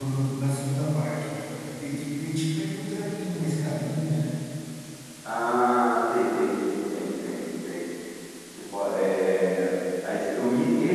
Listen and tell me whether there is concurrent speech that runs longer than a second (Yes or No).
No